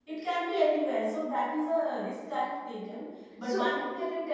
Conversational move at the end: listening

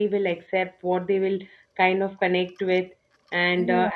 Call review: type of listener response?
taking over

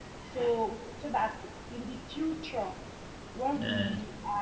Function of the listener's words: listening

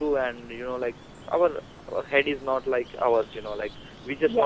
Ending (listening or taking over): listening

